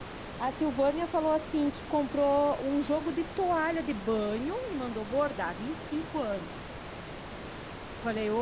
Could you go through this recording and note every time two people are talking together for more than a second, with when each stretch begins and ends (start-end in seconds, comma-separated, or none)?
none